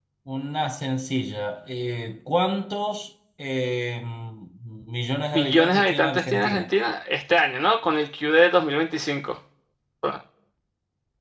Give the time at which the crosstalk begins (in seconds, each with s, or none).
5.3 s